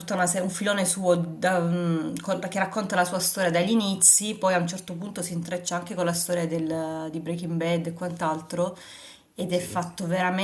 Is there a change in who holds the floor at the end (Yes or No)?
No